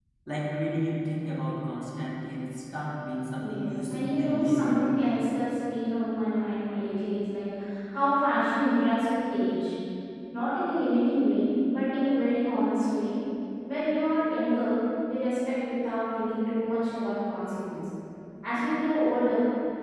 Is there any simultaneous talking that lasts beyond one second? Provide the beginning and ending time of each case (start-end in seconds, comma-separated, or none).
3.4-4.9